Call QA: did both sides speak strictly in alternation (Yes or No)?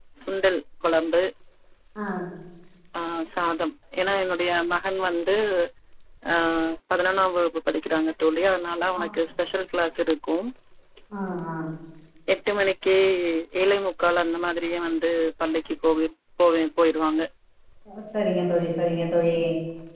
Yes